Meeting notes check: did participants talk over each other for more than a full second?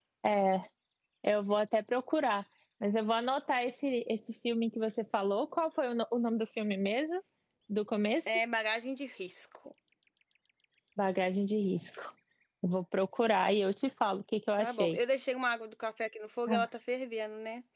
No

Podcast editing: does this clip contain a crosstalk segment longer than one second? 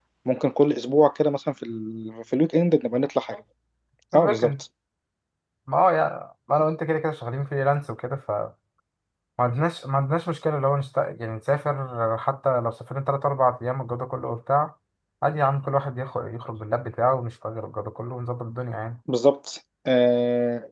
No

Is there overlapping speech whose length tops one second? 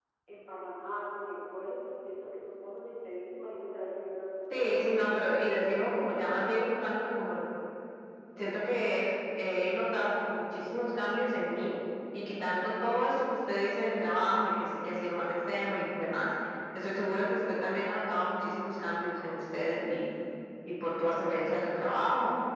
Yes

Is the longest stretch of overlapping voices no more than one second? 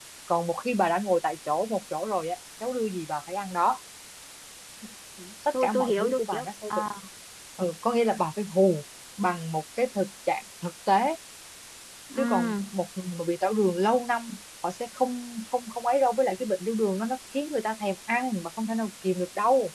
No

